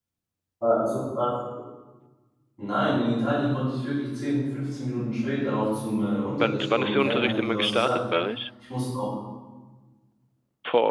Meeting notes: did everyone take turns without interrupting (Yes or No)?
No